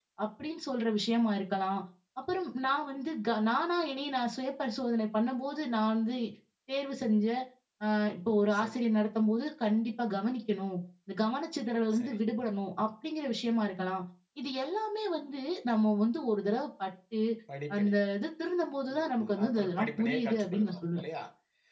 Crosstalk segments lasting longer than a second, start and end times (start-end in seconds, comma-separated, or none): 18.9-21.0